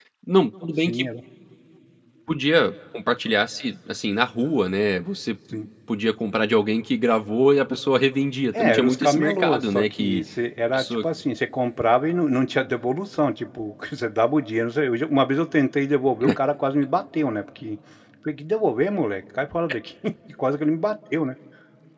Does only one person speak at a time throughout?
No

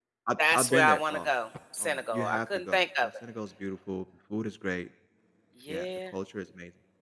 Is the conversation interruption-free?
No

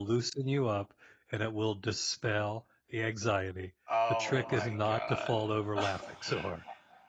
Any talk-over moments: Yes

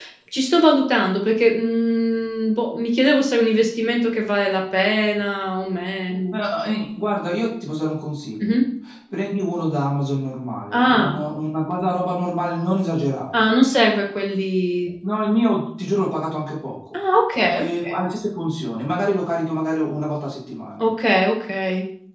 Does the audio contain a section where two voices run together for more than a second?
No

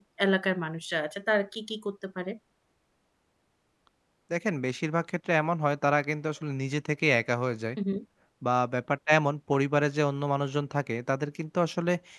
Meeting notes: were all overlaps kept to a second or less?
Yes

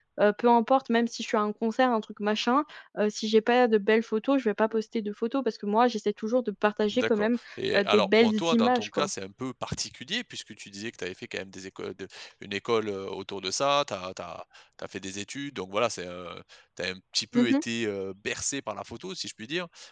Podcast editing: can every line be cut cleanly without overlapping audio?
No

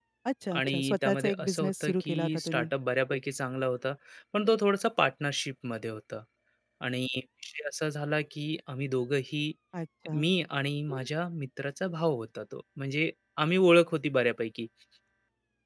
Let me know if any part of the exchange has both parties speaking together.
Yes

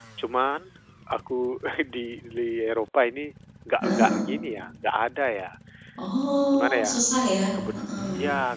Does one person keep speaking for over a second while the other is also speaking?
No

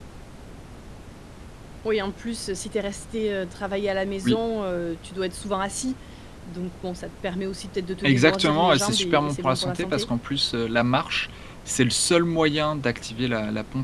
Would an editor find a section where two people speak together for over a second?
Yes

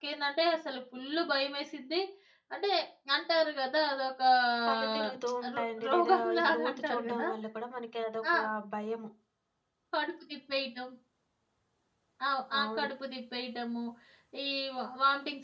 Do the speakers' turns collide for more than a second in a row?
Yes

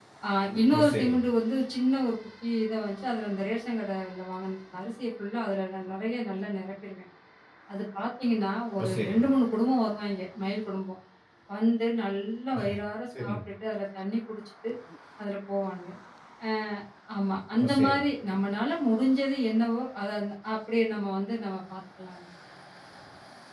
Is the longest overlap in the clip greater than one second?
No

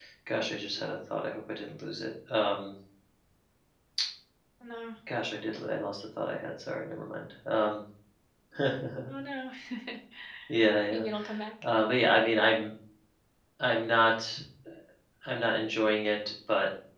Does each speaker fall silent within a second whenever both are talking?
Yes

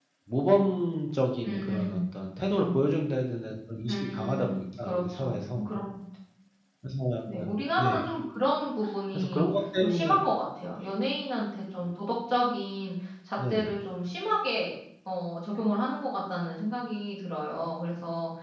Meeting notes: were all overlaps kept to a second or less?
No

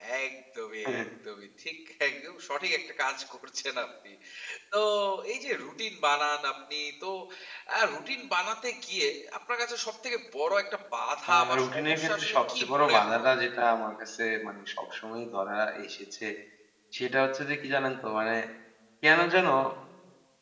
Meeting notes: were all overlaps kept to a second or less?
No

